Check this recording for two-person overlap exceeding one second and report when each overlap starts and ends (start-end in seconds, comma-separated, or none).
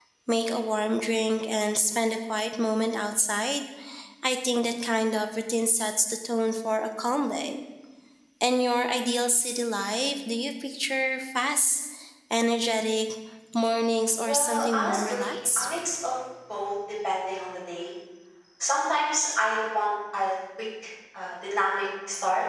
14.2-15.7